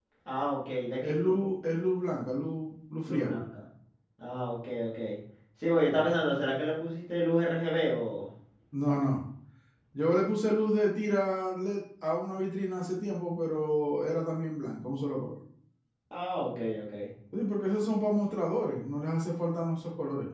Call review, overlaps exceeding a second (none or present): none